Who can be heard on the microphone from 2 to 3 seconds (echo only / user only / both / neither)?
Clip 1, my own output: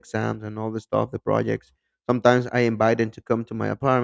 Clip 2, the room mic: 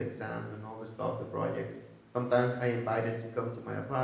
echo only